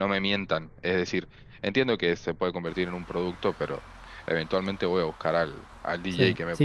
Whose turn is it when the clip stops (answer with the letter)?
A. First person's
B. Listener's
B